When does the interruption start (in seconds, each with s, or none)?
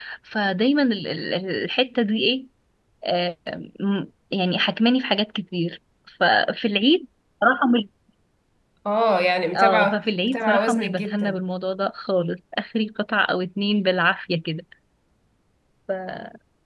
9.6 s